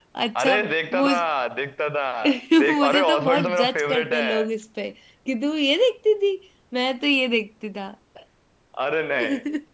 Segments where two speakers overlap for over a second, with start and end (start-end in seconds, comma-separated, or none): 2.7-4.3